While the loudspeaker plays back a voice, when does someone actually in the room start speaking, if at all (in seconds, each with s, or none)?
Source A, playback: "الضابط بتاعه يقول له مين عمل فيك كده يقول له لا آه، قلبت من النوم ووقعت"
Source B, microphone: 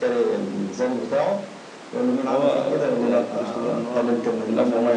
2.3 s